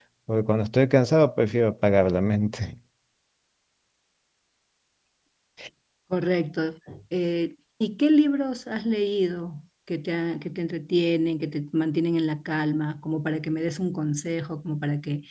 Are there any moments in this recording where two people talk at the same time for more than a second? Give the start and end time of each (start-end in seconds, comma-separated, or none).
none